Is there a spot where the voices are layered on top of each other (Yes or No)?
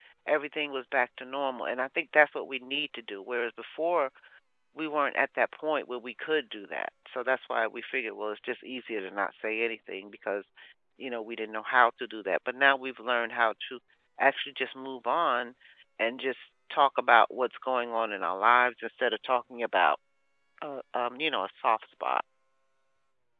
No